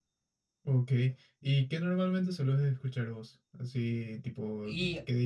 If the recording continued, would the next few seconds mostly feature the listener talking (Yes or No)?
No